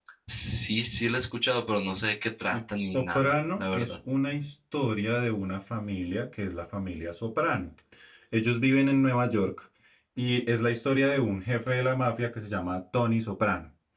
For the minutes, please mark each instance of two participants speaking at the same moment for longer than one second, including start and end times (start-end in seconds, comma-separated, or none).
2.5-3.9